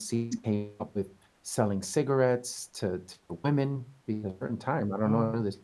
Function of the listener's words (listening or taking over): listening